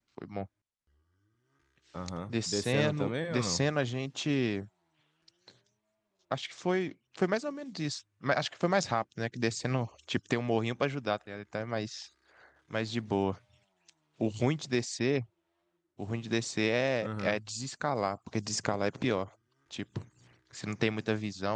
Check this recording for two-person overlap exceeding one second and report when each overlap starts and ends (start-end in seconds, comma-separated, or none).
2.3-3.7